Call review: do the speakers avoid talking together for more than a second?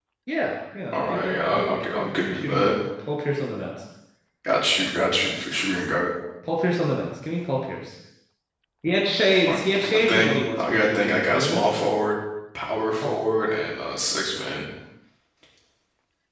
No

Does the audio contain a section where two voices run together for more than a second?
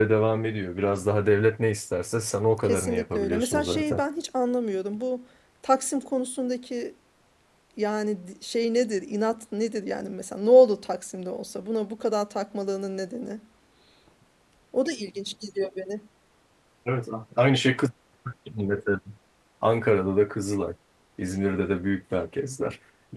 Yes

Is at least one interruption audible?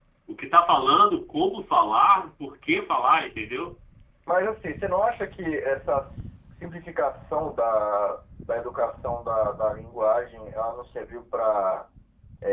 No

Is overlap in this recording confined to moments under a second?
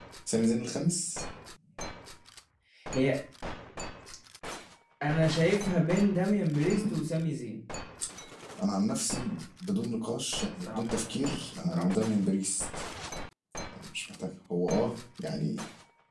Yes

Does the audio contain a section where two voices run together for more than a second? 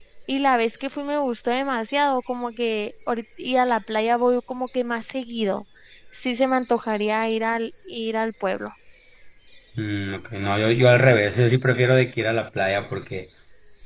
No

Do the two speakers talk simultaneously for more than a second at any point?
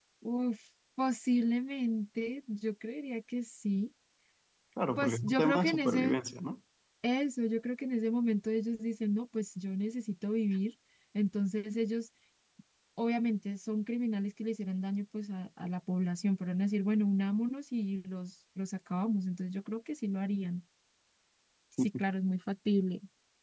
Yes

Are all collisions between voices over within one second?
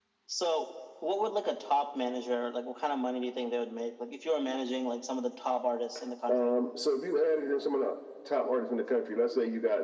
Yes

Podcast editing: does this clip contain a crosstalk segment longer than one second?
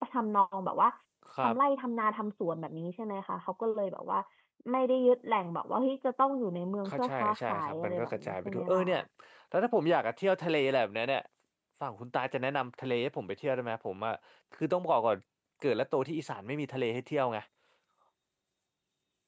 Yes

